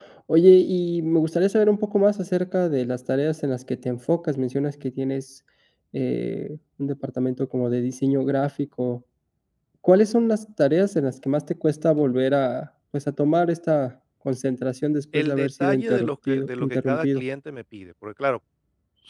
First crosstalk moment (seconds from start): 15 s

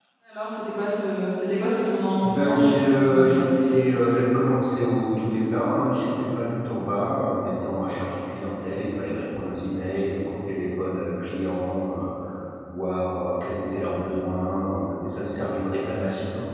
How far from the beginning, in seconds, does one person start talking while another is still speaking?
2 s

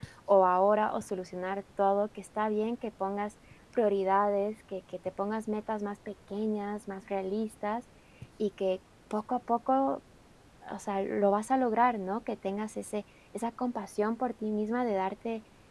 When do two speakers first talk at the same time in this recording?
none

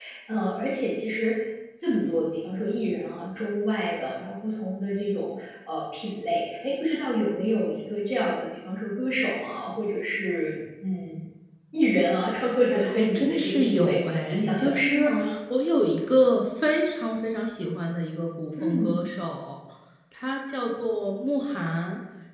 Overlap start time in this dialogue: 13 s

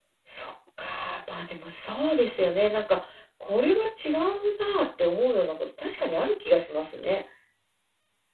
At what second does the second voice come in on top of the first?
none

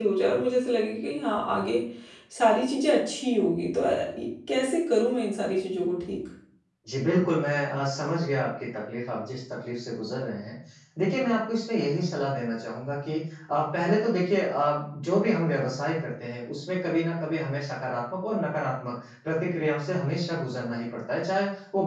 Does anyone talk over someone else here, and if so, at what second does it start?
none

